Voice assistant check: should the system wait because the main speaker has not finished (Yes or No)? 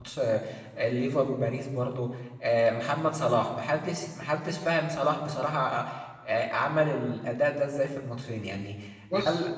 Yes